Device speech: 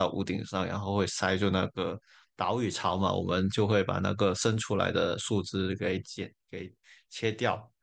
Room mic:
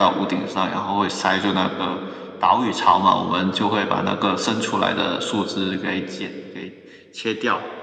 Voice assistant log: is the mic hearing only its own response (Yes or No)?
Yes